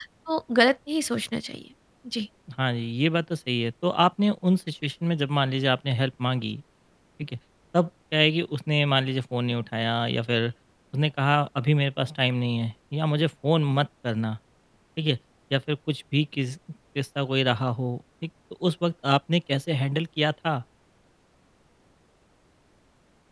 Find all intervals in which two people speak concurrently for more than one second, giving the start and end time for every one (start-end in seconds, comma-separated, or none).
none